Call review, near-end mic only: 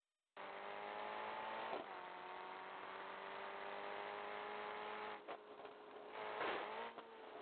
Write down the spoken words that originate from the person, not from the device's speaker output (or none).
none